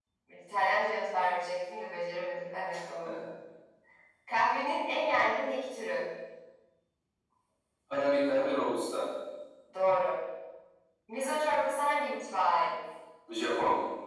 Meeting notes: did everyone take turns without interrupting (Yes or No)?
Yes